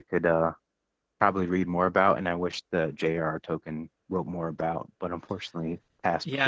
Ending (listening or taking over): taking over